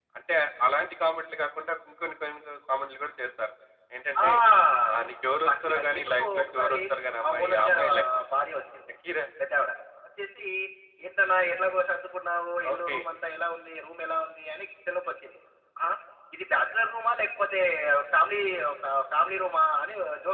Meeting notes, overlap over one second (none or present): present